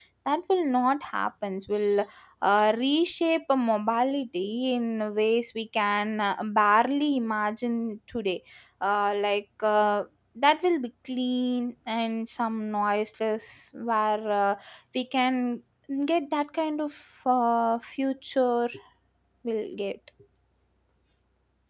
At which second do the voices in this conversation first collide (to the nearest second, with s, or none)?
none